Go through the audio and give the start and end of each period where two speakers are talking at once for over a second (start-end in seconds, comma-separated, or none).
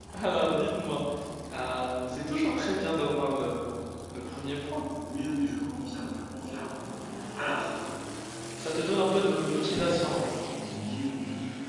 none